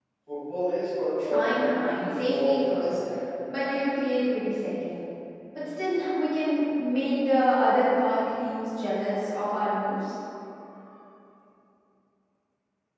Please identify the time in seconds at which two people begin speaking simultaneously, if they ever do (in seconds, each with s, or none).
1.1 s